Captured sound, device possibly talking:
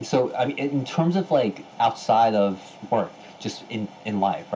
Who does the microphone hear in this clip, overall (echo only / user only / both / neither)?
echo only